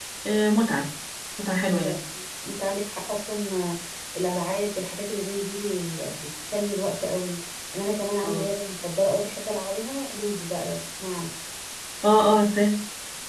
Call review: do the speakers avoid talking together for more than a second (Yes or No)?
Yes